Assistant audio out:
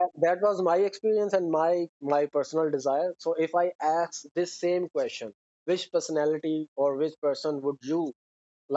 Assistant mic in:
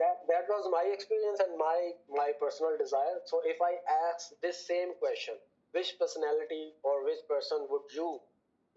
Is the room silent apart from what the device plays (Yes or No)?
Yes